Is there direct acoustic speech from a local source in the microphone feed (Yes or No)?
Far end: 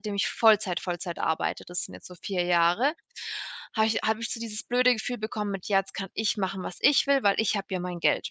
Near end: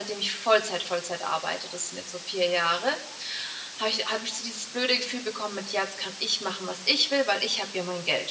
No